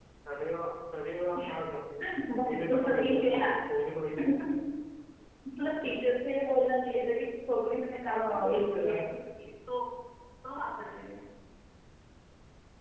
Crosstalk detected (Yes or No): Yes